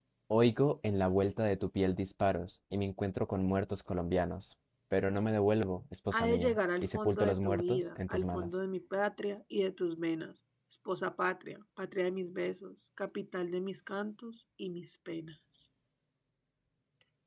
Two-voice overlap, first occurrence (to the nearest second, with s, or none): 6 s